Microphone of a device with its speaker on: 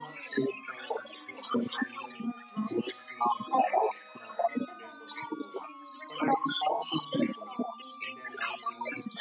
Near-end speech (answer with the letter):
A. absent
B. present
A